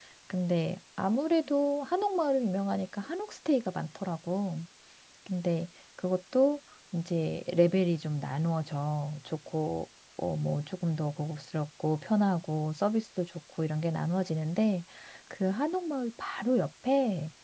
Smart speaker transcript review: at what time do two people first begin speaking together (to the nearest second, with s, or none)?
none